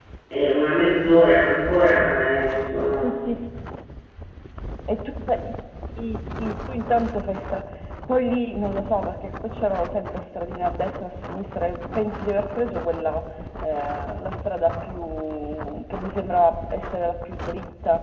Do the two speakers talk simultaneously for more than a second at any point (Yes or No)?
No